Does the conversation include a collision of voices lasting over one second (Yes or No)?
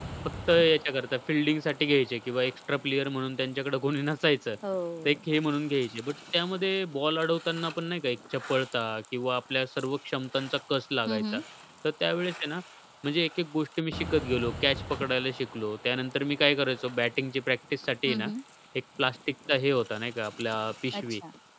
No